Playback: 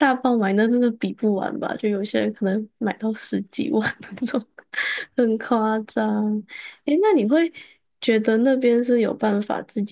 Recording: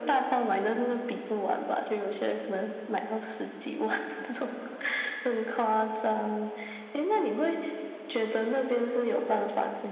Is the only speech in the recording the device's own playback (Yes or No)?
Yes